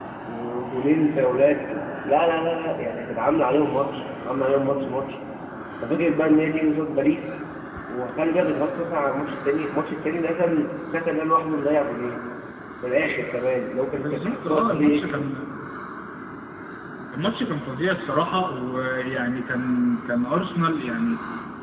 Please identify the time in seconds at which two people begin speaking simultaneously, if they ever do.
14 s

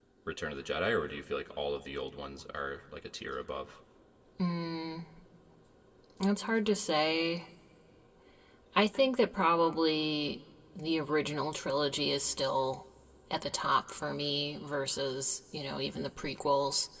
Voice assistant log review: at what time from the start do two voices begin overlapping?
none

